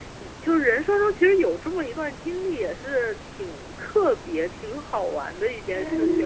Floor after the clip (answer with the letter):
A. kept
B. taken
B